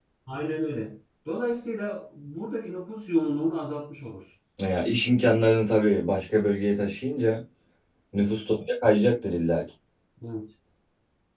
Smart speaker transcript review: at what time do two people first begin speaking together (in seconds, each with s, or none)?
none